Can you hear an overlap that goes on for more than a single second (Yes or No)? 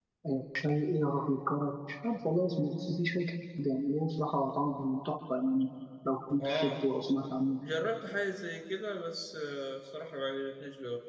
No